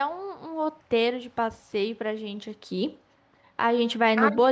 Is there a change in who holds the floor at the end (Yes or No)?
No